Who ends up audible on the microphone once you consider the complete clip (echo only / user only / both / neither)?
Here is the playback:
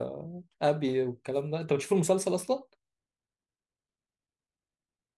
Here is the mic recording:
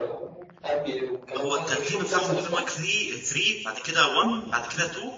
both